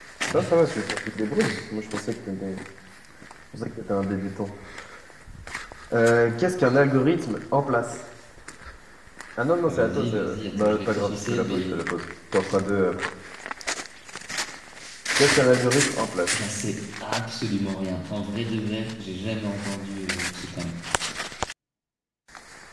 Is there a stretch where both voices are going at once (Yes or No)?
Yes